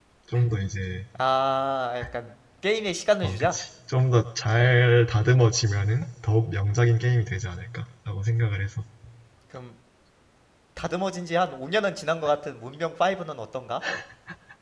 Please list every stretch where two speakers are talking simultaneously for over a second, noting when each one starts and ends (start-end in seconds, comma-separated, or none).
none